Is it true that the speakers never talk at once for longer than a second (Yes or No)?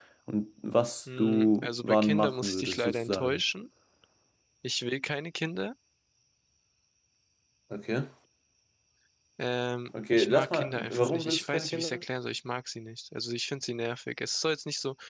No